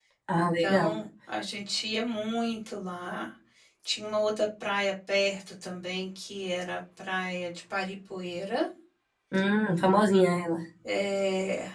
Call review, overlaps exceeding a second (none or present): none